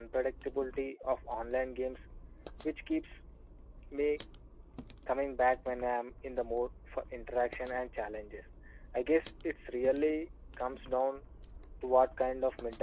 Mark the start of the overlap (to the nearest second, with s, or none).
none